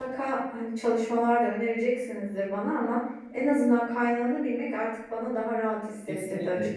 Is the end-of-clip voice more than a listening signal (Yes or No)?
Yes